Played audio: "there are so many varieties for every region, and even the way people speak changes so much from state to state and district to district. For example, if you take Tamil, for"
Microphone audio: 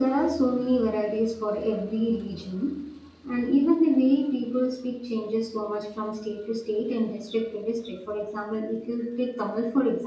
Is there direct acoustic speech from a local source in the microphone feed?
No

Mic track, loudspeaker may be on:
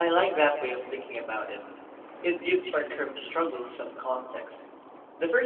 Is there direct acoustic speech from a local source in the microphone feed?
Yes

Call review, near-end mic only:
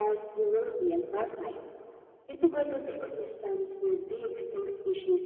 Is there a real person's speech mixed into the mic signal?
No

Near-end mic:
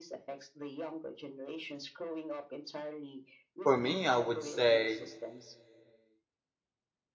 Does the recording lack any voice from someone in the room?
No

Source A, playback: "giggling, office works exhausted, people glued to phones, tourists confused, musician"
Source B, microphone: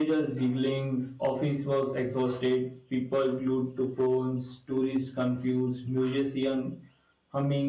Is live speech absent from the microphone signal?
Yes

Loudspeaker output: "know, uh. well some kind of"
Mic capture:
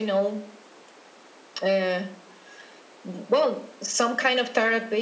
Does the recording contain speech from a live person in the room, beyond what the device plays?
No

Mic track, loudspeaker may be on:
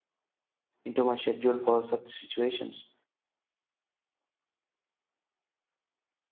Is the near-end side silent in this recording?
No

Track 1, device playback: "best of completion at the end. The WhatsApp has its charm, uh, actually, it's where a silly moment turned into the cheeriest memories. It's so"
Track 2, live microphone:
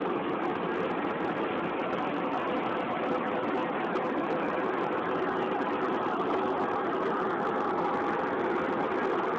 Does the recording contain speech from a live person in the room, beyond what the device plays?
No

